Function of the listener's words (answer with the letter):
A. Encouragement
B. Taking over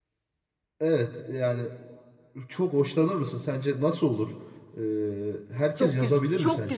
B